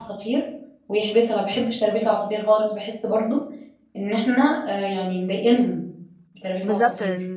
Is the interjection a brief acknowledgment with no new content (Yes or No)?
No